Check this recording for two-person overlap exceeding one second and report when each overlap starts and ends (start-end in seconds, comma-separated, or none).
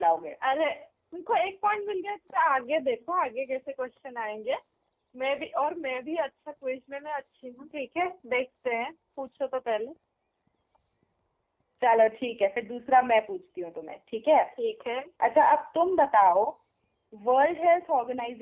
none